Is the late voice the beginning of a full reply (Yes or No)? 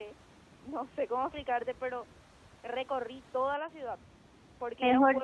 Yes